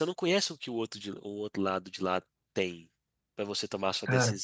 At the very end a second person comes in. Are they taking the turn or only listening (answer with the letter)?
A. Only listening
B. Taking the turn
A